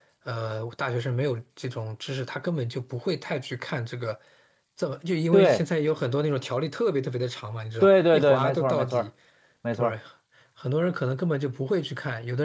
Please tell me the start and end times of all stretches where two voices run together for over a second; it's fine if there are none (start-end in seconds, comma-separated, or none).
7.8-9.1